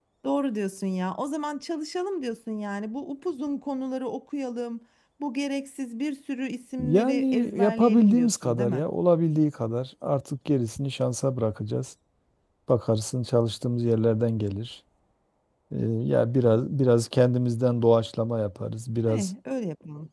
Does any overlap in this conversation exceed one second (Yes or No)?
Yes